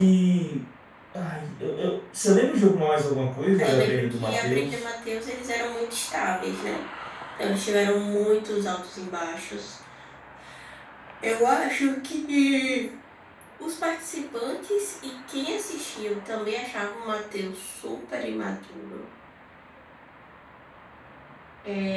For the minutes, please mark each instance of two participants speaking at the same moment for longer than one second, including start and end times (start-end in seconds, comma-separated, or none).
3.6-4.8